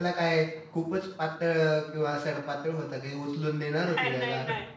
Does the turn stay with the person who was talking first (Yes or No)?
No